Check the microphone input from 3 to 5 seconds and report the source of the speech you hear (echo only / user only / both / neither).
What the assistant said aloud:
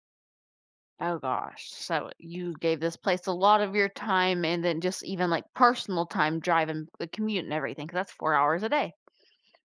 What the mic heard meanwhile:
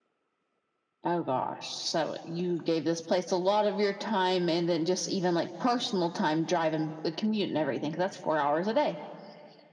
echo only